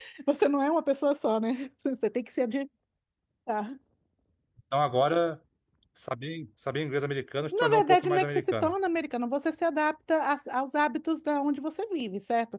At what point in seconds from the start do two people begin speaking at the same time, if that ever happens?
7.5 s

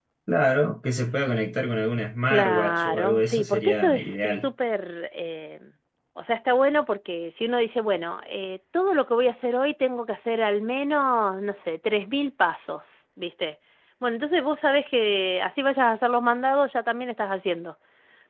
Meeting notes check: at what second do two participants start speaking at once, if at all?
2.3 s

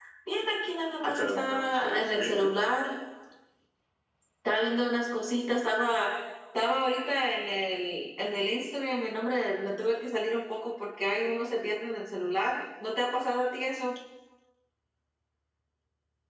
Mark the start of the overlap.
1.0 s

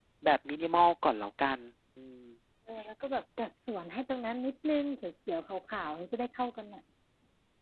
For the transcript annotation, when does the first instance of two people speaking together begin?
none

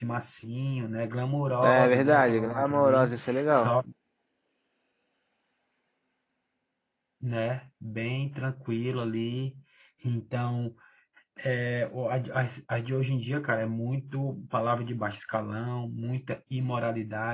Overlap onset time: 1.6 s

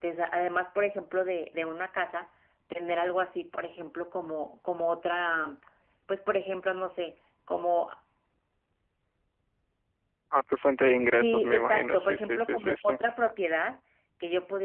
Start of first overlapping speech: 11.1 s

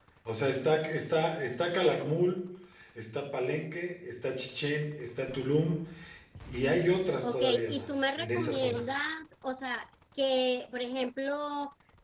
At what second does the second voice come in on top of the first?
7.2 s

